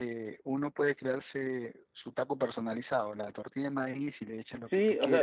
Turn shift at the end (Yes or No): Yes